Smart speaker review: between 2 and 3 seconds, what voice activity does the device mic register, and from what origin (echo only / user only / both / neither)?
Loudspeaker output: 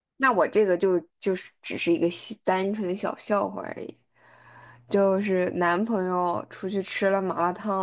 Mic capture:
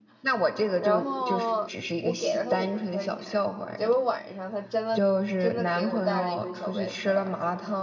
both